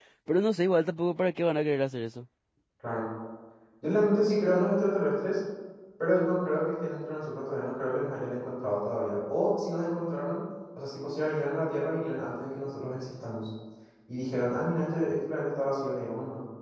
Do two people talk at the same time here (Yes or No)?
No